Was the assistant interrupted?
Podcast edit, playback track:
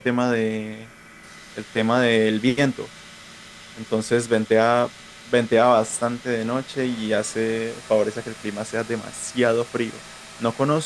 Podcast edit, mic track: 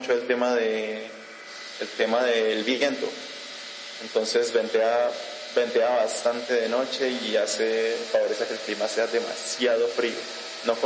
No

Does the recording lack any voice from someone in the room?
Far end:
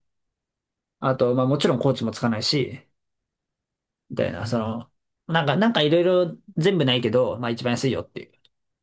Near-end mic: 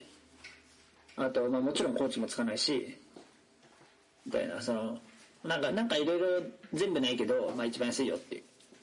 Yes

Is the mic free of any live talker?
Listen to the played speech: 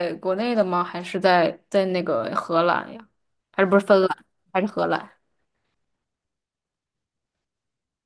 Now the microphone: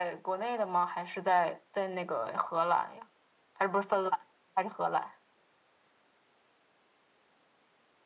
Yes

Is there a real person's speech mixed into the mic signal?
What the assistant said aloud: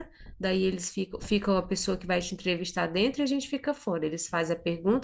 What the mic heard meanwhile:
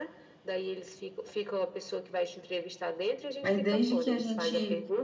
Yes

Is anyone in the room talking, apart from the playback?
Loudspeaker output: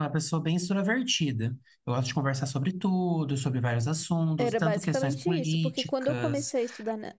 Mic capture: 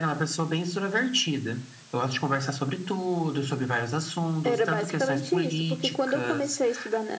No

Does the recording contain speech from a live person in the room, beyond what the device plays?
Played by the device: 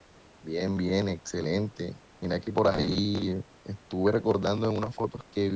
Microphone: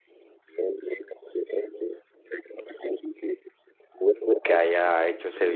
Yes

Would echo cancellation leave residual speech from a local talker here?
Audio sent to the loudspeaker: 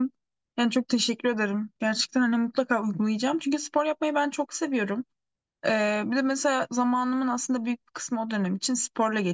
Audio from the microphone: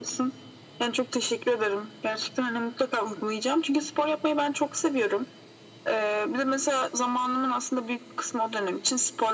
No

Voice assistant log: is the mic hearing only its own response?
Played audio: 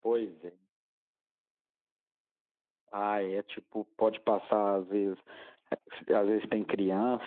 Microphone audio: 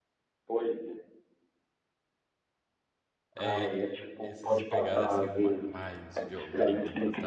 No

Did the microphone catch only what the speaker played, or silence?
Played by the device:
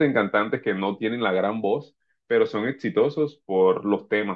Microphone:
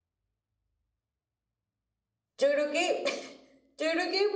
No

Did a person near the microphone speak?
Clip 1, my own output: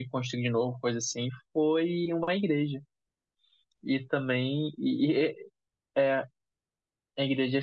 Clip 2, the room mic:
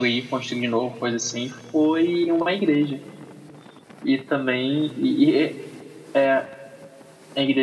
No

